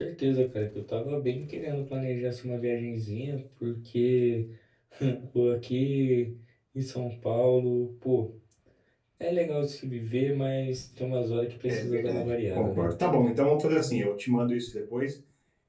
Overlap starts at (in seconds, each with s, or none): 11.7 s